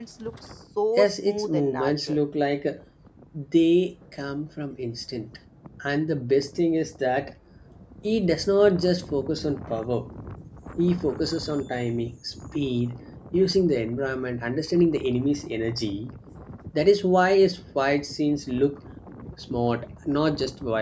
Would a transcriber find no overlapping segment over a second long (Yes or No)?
No